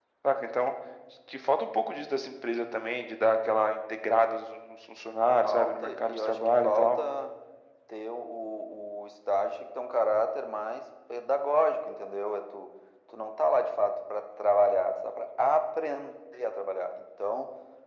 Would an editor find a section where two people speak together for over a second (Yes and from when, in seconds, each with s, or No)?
Yes, from 5.4 s